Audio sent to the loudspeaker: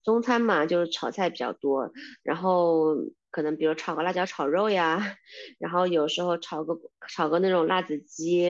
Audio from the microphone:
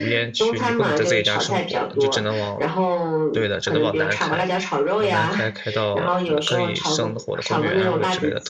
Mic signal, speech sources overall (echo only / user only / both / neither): both